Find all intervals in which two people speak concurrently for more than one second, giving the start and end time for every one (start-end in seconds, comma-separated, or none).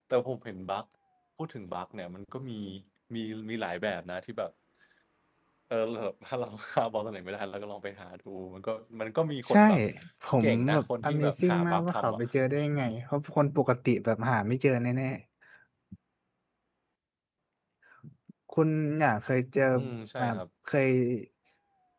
10.4-12.2